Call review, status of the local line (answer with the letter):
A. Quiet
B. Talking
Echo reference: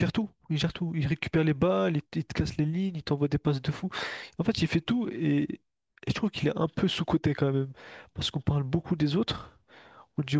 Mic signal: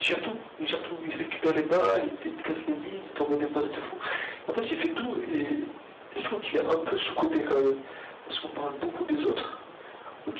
A